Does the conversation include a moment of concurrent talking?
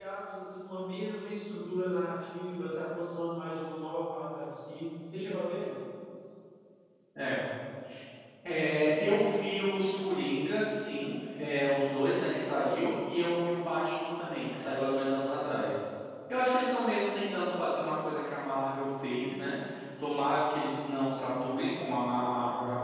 No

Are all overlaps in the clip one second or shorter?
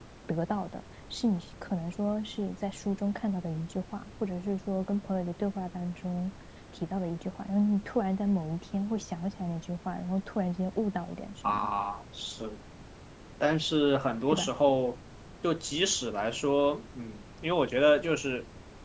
Yes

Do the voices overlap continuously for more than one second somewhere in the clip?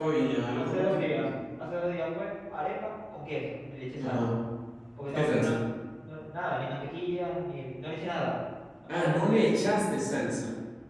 Yes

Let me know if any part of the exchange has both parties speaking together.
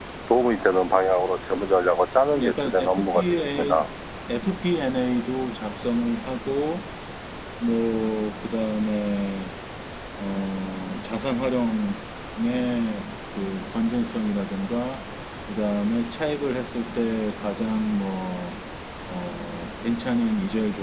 Yes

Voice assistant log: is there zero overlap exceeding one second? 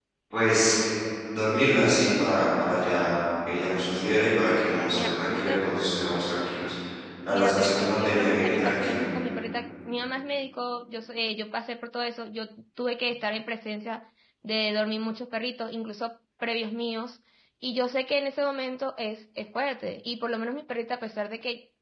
No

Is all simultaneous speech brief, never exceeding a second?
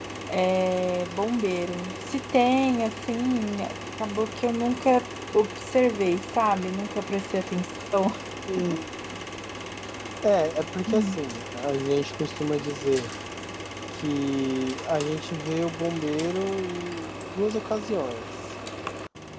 Yes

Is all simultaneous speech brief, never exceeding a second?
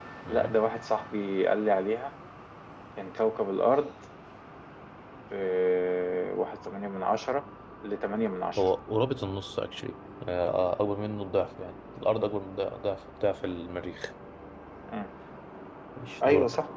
Yes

